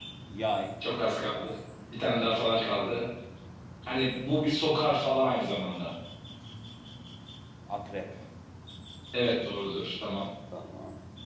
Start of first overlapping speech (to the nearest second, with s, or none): none